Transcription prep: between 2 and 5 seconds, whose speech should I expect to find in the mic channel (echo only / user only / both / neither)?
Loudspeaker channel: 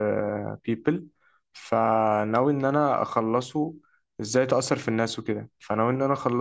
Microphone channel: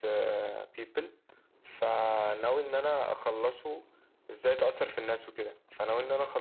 echo only